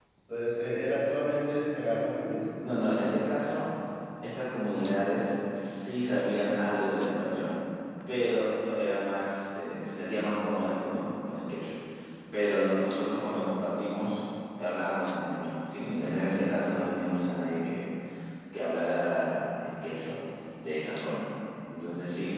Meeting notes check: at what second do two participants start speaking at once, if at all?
none

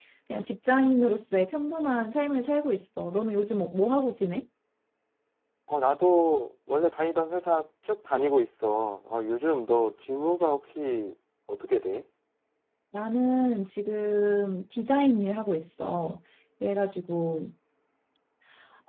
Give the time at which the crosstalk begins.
none

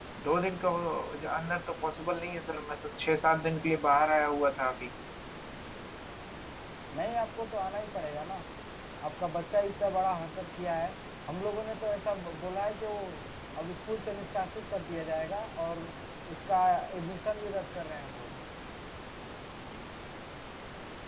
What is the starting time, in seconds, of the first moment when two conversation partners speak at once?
none

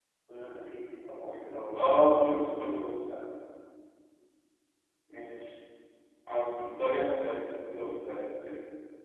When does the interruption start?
1.8 s

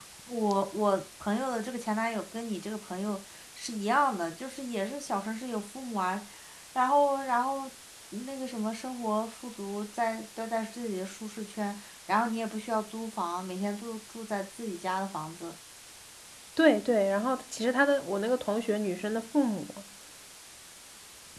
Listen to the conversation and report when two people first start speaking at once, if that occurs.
none

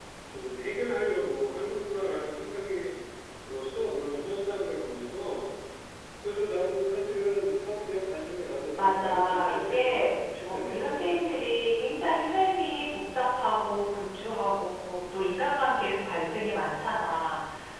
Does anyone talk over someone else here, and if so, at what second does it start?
8.8 s

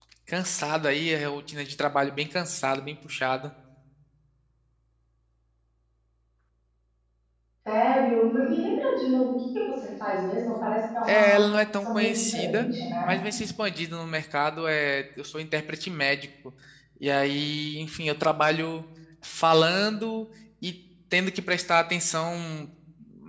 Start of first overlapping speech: 11.1 s

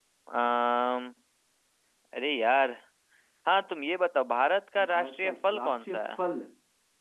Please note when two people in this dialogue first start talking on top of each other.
4.8 s

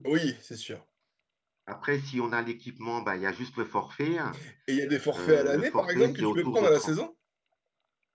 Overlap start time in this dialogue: 5.1 s

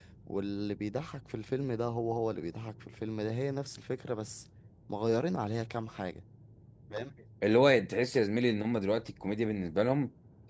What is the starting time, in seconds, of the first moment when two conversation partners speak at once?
none

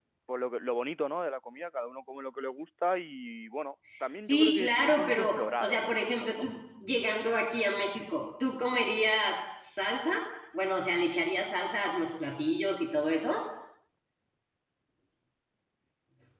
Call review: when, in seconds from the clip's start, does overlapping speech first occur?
4.2 s

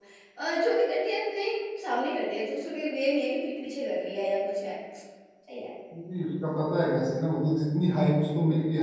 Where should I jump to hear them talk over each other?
none

